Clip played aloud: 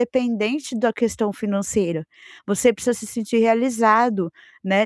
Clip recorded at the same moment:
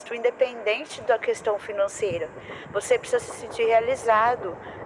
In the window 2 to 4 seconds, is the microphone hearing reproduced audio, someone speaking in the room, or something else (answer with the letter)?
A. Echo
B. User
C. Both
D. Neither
A